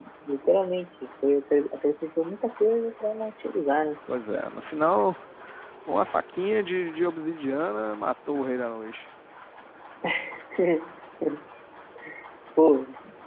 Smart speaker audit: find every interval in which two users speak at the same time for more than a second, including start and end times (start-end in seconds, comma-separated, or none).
none